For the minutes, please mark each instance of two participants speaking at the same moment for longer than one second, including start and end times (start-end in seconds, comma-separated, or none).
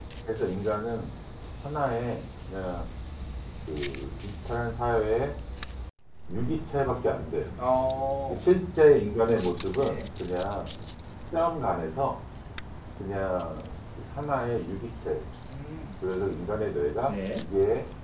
none